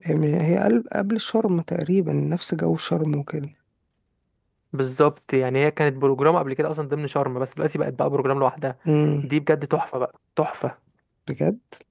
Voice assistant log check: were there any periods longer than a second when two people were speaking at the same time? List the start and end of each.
none

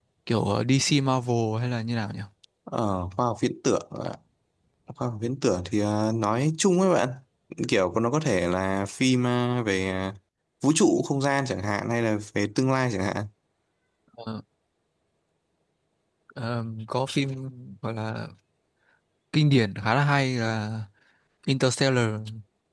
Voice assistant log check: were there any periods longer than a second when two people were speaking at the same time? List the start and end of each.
none

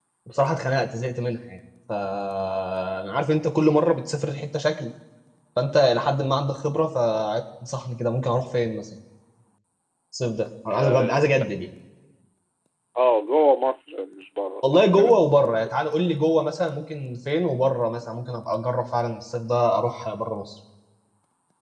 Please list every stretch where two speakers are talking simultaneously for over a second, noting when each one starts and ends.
none

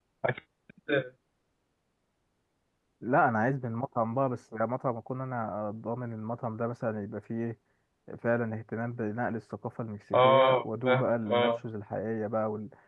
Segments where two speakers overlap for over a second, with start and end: 10.1-11.5

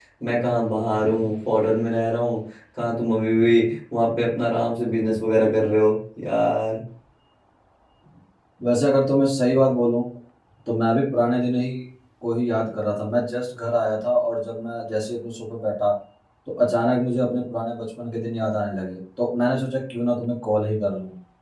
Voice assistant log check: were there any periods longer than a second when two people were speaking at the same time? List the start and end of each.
none

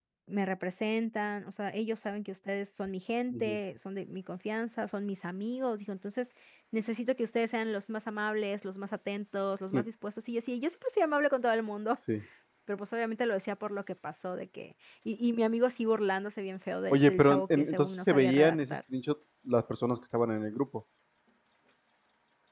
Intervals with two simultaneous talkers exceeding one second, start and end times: 16.9-18.8

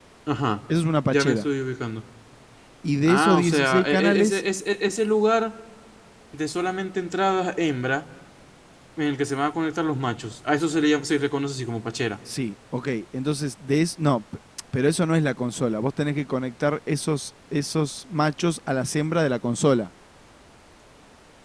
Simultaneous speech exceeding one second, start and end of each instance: 3.0-4.4

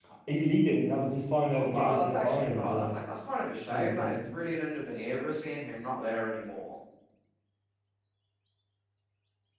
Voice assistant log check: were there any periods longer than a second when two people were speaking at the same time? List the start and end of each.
1.5-3.0

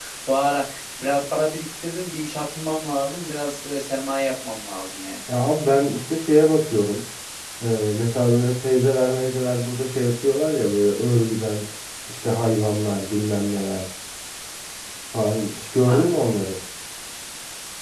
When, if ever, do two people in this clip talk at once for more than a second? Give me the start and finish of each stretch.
none

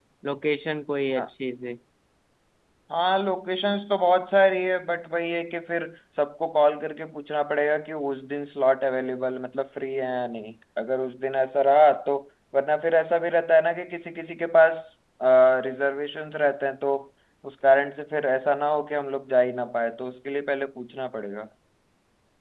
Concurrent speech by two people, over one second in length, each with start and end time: none

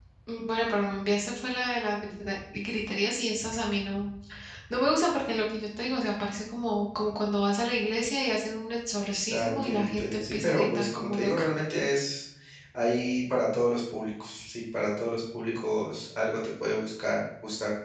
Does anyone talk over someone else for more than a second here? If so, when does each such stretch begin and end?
9.3-11.5

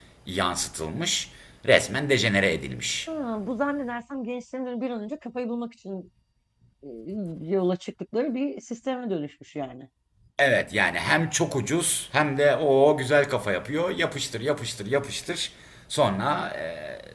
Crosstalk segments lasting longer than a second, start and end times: none

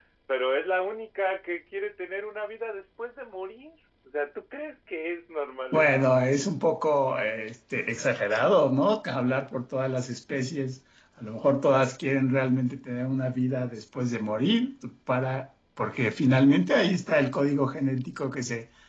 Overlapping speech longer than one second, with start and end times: none

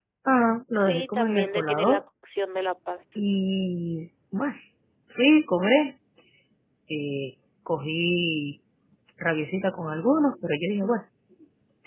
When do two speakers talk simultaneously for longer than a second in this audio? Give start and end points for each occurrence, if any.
0.7-2.0

